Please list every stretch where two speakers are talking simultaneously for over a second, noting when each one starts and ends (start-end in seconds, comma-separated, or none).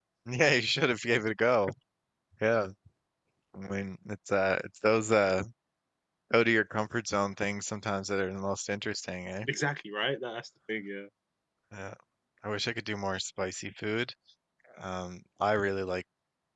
none